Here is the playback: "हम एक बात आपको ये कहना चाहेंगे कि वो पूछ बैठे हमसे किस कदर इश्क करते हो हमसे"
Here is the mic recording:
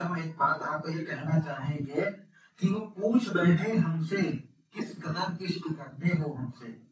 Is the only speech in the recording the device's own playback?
Yes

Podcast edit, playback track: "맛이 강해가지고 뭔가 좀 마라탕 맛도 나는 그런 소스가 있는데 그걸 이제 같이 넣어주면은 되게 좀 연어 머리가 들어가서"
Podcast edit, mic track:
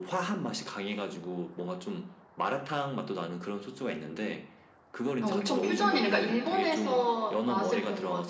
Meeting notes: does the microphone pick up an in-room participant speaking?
Yes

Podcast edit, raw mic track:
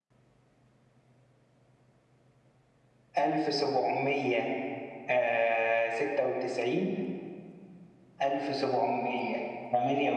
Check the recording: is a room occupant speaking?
No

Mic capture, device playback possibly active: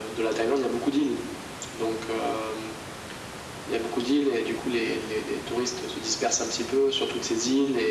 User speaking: No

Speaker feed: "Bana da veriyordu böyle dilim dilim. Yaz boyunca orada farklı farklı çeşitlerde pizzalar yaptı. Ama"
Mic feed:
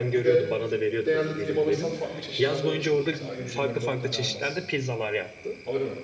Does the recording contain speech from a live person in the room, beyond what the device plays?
Yes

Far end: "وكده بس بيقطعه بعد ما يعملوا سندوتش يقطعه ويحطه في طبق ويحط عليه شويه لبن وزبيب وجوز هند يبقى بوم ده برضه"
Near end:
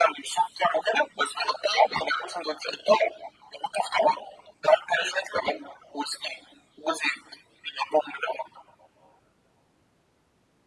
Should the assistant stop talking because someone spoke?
No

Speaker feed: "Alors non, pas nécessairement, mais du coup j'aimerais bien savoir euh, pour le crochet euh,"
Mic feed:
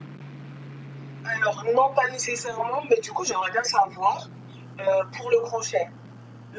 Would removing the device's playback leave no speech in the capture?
Yes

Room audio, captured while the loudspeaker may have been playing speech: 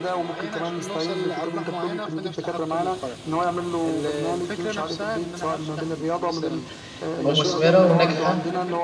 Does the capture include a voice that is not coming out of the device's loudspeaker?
Yes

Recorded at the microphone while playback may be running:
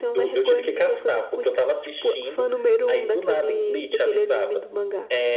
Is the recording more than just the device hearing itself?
No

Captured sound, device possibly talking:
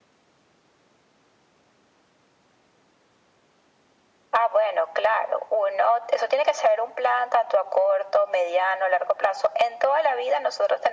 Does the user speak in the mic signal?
No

